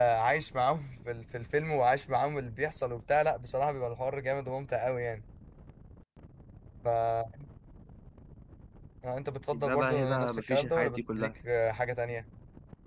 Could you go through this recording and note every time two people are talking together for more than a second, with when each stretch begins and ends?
9.5-11.3

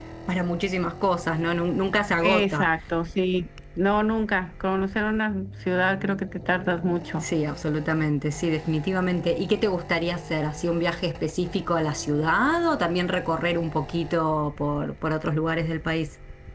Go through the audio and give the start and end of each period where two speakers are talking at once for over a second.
none

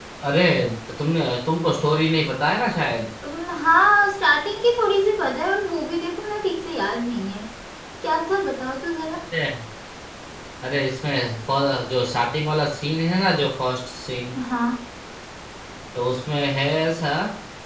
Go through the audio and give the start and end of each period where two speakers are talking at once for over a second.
none

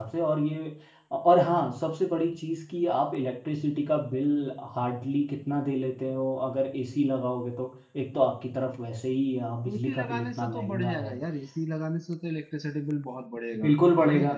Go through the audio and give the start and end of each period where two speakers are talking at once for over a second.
9.7-11.2

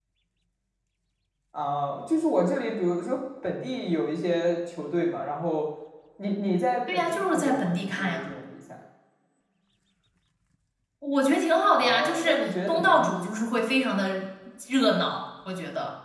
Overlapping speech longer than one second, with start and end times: 6.9-8.3, 11.8-13.1

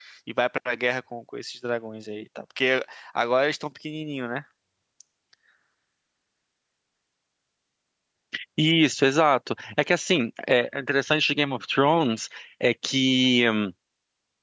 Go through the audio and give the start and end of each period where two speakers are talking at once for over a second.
none

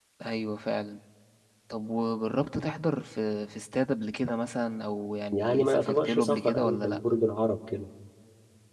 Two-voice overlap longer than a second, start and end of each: 5.3-7.0

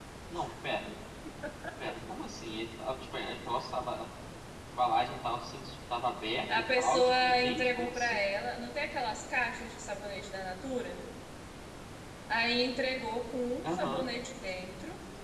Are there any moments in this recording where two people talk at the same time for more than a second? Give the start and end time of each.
6.5-8.2

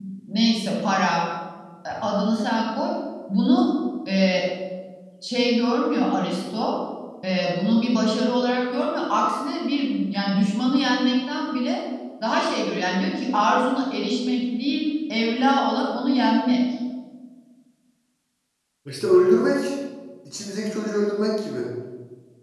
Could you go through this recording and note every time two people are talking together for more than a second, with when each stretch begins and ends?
none

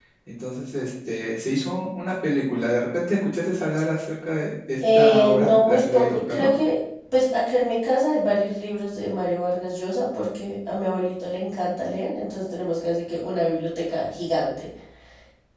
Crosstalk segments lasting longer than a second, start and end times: 4.9-6.5

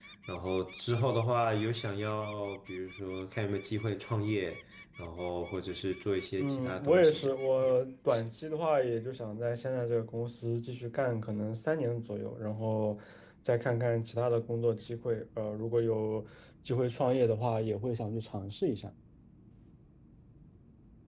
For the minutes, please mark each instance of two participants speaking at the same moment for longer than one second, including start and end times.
6.4-7.7

